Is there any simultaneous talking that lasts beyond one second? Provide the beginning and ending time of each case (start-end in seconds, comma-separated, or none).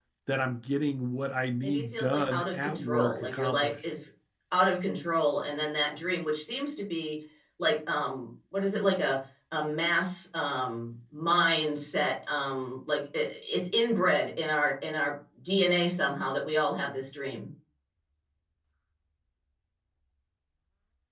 1.6-3.9